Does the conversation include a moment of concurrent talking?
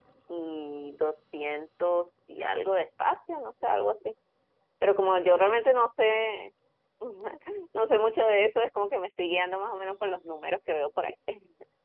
No

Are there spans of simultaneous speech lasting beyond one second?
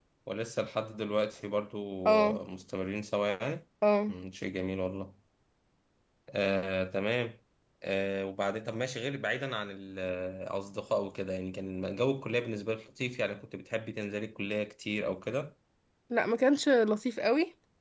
No

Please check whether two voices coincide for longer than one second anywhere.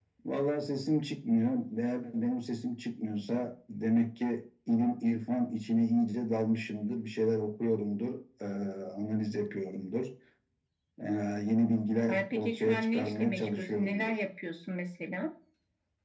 Yes, from 12.1 s

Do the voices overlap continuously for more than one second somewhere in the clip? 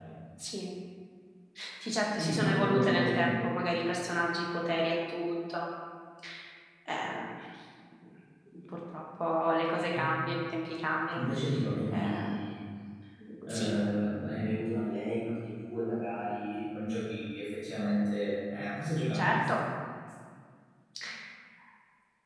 Yes, from 2.2 s

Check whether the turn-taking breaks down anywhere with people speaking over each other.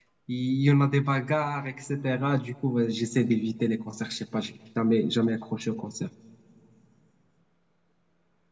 No

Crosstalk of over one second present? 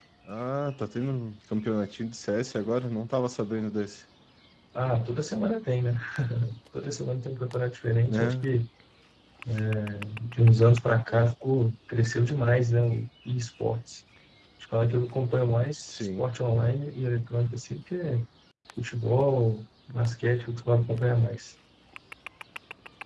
No

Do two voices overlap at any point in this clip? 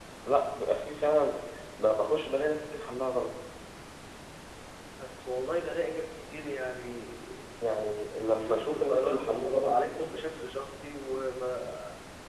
Yes, from 8.4 s

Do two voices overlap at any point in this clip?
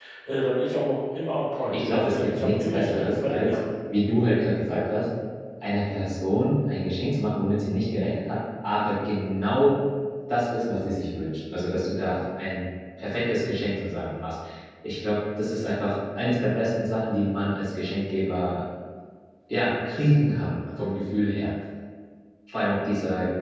Yes, from 1.7 s

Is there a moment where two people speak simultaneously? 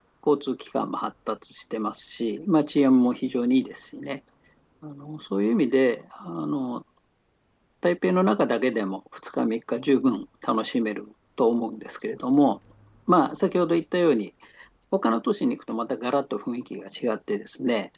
No

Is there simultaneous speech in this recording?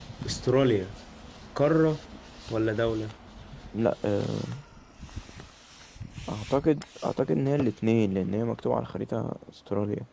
No

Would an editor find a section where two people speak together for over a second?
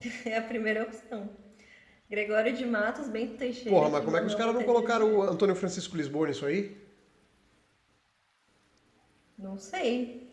Yes, from 3.7 s

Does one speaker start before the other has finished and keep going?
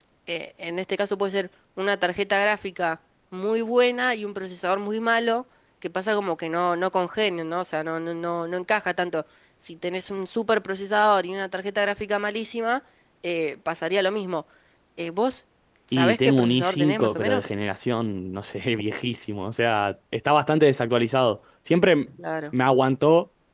Yes, from 15.9 s

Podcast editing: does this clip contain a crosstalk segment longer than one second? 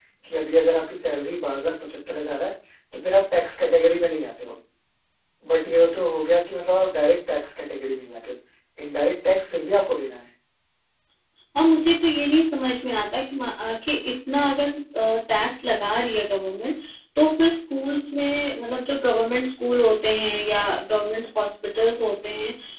No

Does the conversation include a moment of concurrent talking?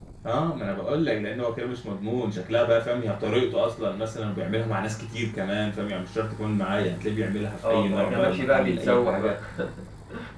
Yes, from 7.6 s

